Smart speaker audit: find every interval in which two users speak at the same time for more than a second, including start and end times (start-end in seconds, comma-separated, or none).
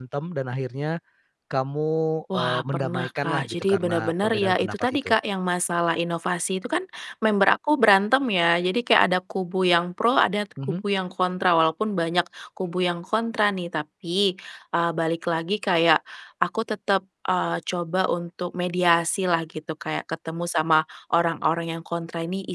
2.3-5.2